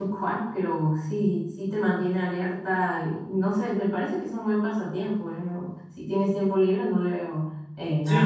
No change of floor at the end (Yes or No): No